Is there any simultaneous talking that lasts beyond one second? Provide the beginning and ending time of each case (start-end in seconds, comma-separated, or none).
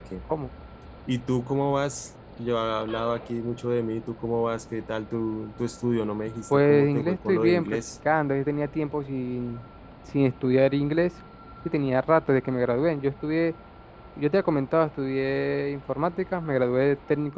6.5-7.8